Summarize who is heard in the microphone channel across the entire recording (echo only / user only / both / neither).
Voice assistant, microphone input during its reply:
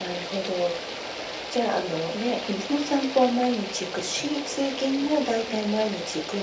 echo only